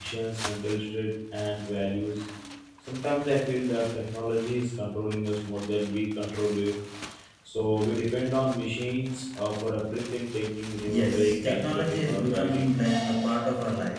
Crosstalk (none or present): present